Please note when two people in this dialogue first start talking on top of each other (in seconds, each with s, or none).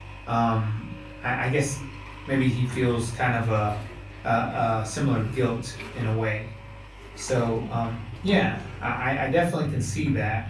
none